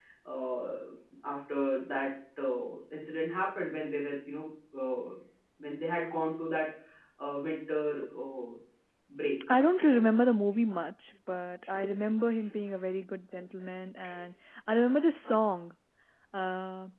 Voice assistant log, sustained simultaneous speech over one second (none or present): none